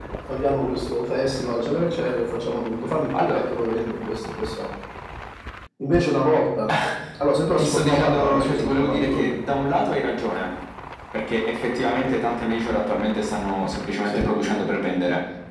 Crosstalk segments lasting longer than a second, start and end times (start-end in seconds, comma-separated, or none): 7.6-9.4